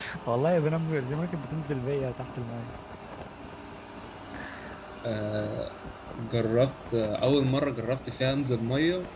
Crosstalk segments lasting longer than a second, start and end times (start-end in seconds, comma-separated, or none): none